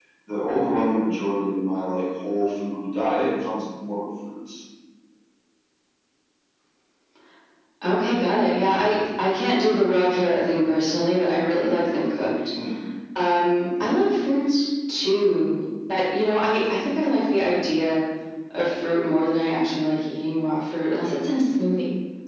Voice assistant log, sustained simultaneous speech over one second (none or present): none